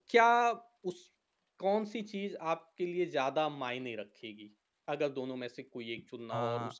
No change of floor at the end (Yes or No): No